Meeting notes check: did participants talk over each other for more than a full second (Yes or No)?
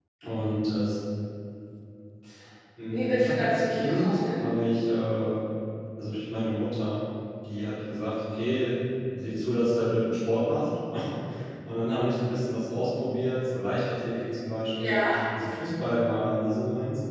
Yes